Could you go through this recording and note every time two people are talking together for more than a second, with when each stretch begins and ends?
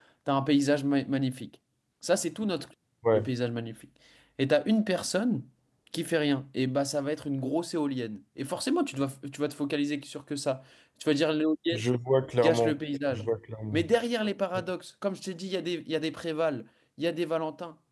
none

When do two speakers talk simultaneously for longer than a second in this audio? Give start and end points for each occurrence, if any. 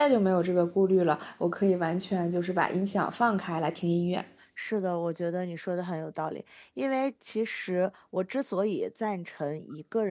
none

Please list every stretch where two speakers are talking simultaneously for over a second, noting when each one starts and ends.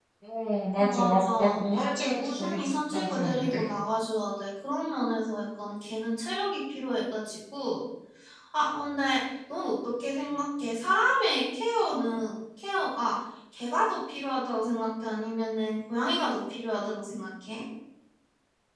0.8-3.7

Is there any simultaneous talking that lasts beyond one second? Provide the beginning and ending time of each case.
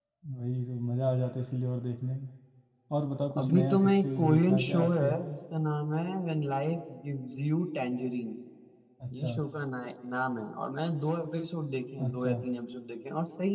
3.4-5.1

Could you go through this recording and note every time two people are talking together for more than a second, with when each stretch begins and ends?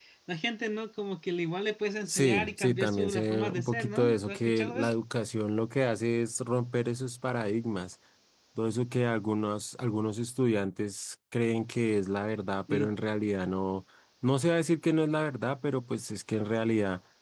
2.1-4.9

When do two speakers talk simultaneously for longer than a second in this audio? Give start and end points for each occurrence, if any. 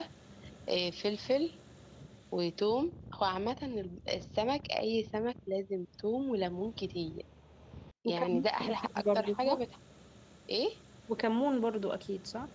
8.0-9.6

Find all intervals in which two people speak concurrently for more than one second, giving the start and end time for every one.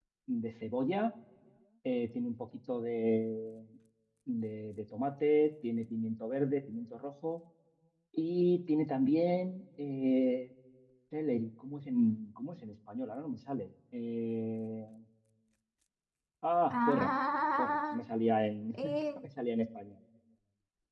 none

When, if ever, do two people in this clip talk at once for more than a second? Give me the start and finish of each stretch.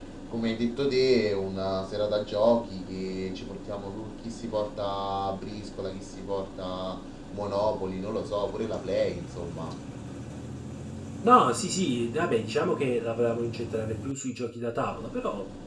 none

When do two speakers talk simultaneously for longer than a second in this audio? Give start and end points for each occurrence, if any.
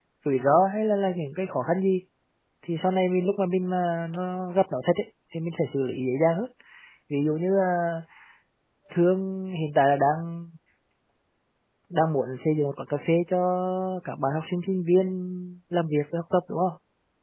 none

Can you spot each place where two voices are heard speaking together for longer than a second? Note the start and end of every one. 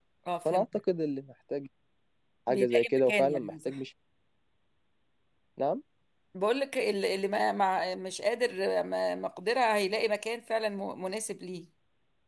2.5-3.7

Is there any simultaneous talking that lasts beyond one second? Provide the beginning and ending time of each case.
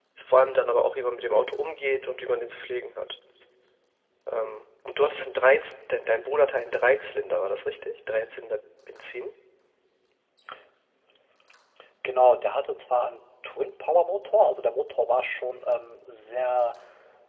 none

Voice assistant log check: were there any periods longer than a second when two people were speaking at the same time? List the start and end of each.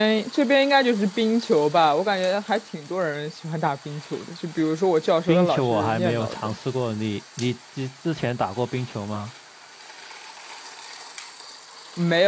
5.3-6.6

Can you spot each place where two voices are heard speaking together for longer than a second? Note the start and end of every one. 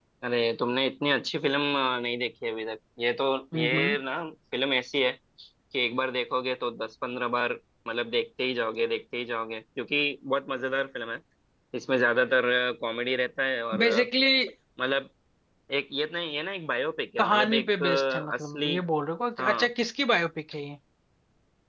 17.2-18.7

